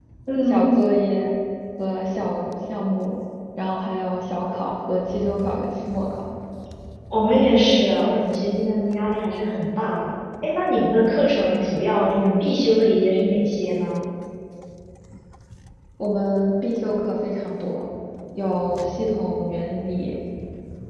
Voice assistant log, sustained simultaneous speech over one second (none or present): none